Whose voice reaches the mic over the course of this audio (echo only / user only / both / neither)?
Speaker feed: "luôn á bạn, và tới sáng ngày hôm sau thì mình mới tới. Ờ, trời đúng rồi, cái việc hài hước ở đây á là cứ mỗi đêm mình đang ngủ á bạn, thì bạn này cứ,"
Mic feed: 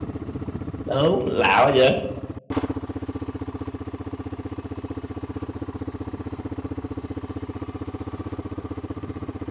user only